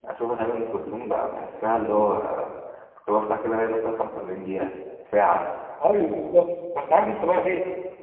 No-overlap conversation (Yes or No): Yes